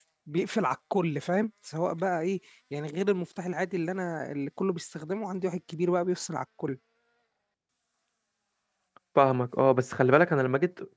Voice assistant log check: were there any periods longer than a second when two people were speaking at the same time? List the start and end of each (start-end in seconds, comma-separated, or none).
none